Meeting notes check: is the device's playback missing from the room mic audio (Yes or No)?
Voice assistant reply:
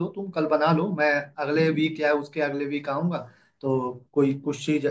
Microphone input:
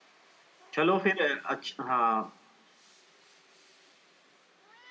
Yes